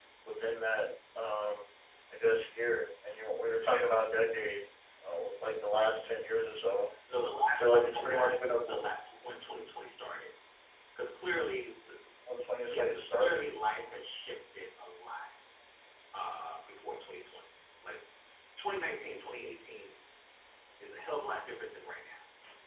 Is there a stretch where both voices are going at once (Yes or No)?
Yes